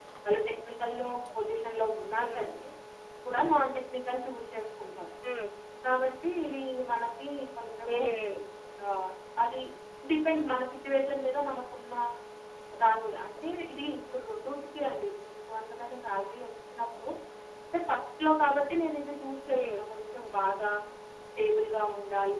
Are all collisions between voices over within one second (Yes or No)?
Yes